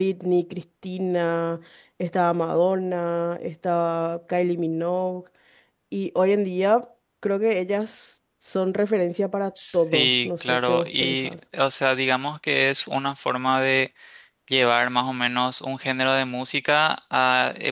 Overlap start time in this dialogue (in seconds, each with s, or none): 9.6 s